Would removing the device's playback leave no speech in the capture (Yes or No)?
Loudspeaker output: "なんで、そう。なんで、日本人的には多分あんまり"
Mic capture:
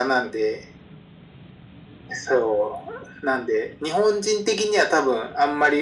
Yes